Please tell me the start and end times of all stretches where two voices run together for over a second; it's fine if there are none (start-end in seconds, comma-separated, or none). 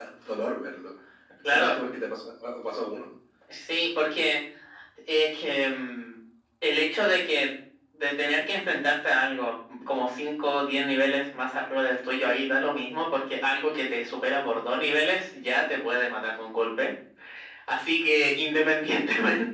none